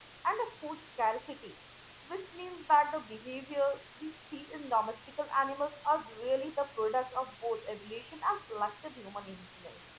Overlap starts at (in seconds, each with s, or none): none